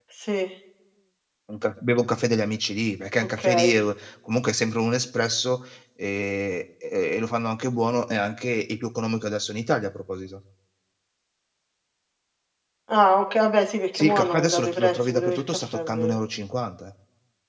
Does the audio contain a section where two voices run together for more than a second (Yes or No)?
Yes